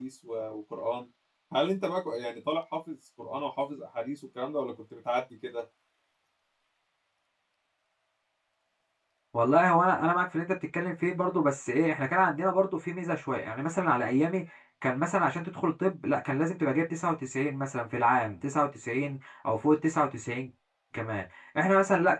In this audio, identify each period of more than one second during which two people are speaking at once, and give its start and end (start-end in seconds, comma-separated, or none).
none